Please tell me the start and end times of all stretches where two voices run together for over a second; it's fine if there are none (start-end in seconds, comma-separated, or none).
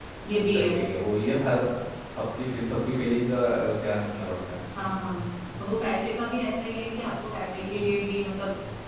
none